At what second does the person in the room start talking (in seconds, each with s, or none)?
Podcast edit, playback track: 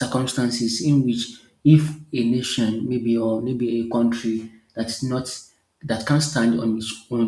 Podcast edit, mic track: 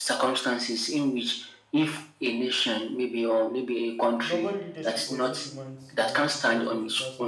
4.2 s